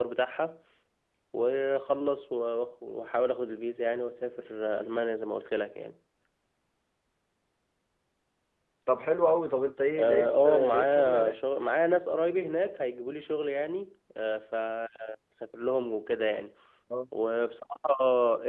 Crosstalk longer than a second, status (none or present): present